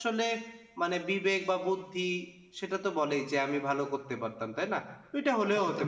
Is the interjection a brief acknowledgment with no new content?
No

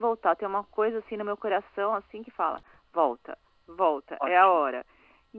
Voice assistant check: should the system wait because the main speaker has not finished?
Yes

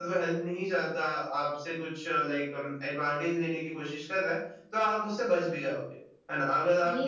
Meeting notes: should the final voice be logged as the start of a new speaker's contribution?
No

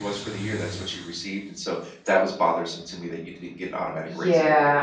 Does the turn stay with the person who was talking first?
No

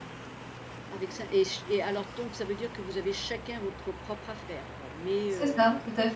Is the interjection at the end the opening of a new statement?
Yes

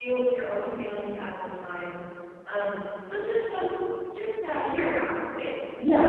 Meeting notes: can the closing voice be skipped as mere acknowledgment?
No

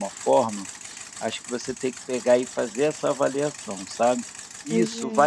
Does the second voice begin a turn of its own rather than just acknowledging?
No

